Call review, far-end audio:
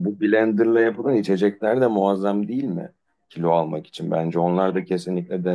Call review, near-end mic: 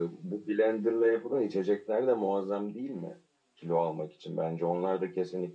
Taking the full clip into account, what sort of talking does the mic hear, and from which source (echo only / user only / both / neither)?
echo only